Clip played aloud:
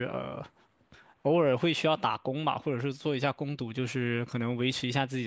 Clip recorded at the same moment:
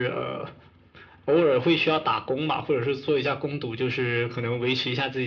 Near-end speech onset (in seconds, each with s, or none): none